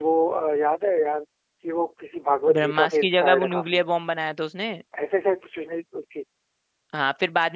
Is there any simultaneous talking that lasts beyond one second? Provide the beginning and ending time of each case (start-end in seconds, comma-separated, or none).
2.5-3.8